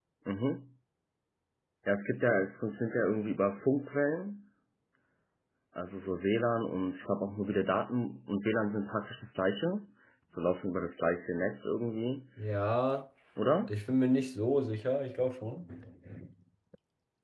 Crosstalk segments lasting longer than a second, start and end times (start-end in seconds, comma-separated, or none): none